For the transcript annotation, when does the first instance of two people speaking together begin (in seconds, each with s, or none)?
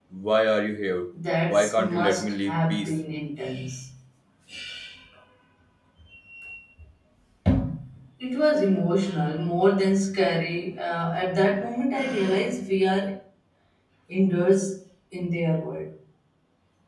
1.5 s